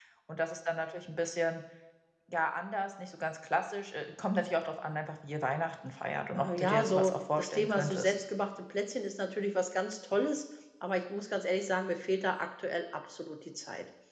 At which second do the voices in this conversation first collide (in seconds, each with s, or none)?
6.3 s